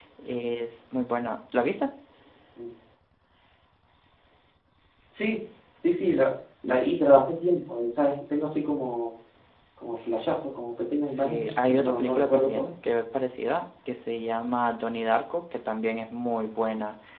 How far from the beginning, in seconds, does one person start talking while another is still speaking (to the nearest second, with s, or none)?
11 s